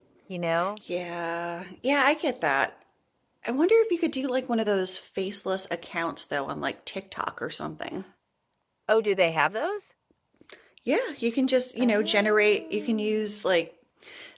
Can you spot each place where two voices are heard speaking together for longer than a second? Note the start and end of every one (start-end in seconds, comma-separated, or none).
11.8-13.3